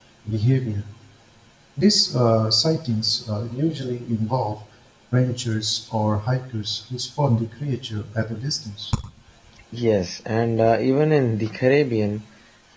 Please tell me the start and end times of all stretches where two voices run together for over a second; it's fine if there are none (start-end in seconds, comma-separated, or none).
none